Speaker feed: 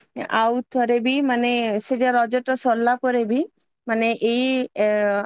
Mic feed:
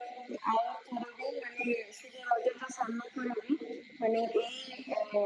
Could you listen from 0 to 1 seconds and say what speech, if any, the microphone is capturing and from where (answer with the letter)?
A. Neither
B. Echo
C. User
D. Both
B